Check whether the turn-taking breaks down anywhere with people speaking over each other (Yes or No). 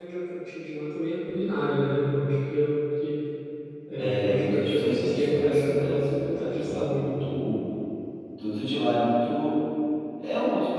Yes